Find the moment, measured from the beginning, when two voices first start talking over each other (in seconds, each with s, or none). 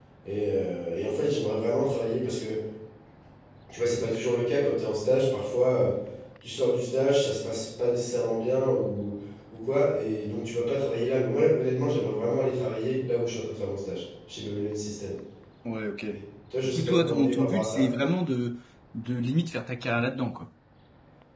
16.6 s